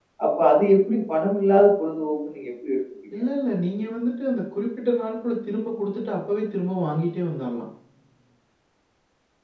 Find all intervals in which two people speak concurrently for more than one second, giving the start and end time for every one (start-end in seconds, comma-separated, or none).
none